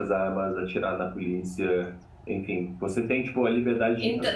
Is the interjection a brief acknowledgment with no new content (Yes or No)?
Yes